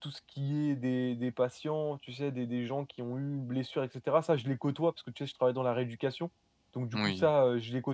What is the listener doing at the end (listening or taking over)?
listening